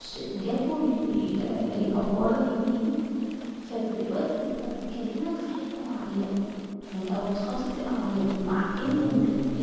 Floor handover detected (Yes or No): No